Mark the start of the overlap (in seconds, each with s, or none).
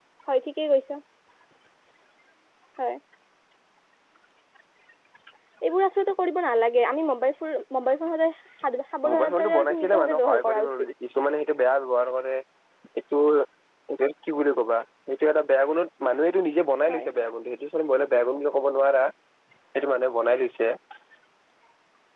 9.0 s